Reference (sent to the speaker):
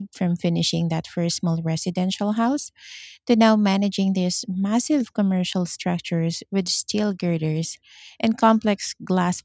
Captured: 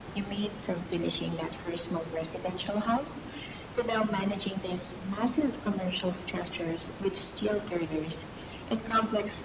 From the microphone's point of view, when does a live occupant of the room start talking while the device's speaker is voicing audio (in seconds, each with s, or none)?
none